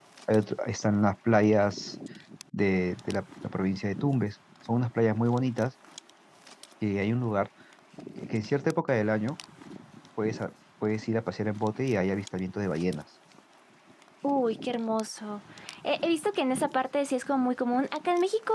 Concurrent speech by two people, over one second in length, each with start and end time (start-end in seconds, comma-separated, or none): none